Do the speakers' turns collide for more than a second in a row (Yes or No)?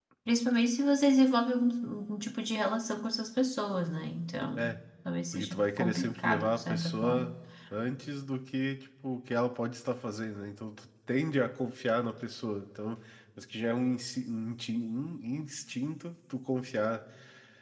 Yes